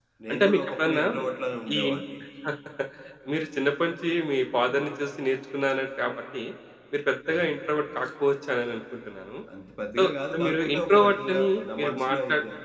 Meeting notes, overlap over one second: present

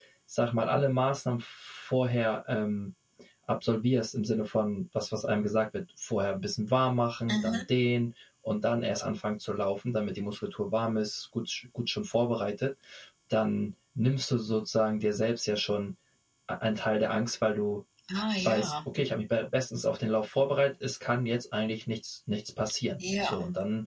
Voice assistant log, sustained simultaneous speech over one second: none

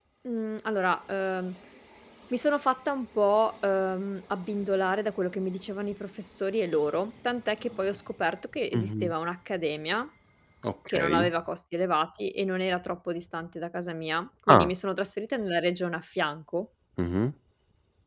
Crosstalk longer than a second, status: none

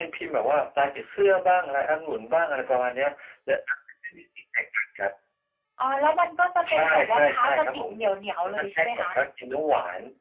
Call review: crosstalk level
present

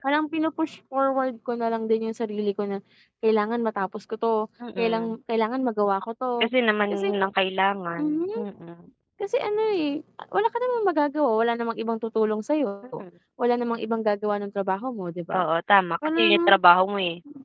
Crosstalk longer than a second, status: none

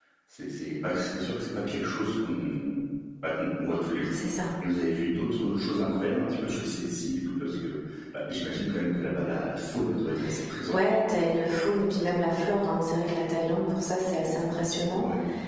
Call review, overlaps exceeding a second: none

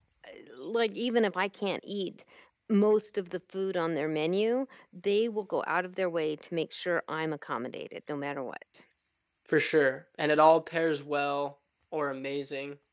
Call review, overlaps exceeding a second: none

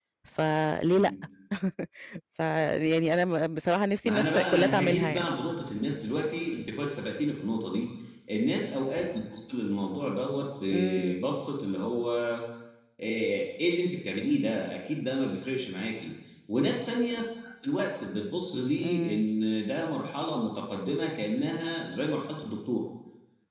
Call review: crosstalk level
present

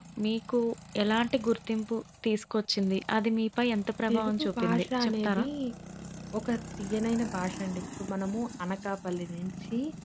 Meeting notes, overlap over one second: present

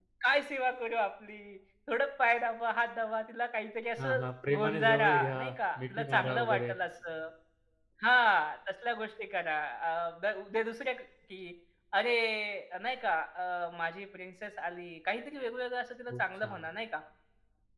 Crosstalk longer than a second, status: present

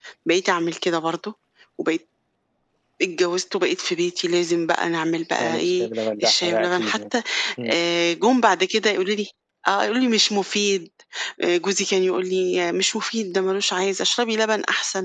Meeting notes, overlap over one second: present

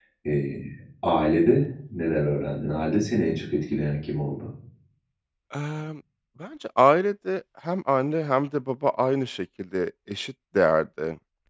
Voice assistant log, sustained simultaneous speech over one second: none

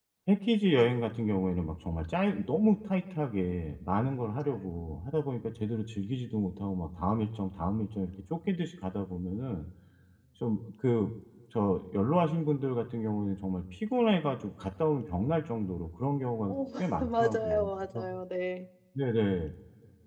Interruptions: present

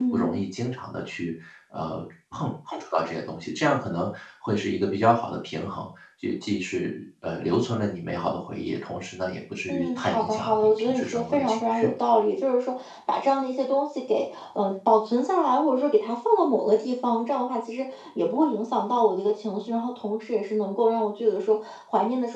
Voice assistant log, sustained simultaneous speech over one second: present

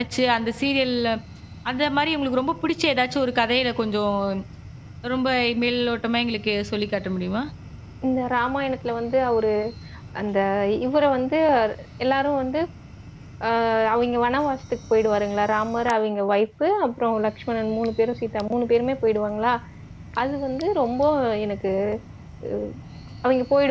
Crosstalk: none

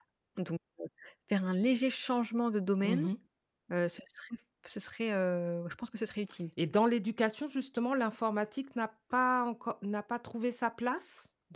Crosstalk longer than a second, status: none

